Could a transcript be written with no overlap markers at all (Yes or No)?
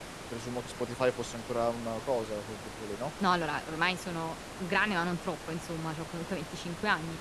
Yes